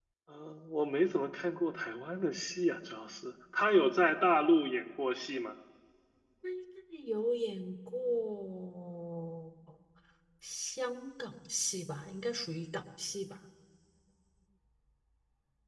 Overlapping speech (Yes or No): No